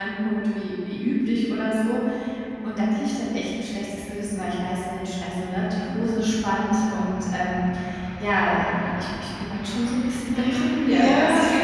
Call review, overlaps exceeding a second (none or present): present